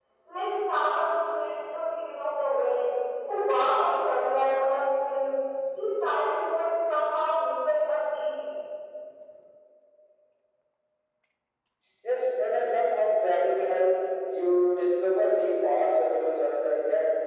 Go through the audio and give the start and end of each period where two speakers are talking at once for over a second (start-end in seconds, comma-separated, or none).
none